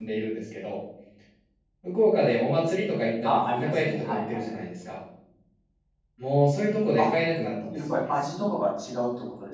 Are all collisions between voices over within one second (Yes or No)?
No